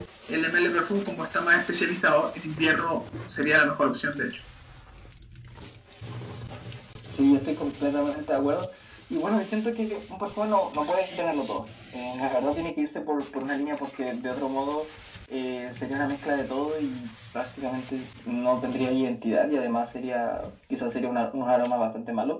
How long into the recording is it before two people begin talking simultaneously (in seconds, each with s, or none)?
none